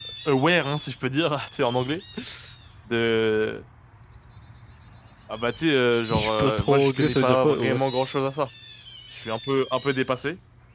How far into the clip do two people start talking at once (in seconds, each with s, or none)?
6.1 s